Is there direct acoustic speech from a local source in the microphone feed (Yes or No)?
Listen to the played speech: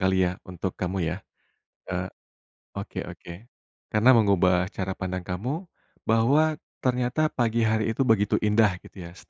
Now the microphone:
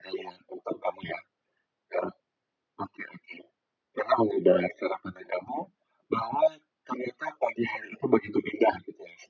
No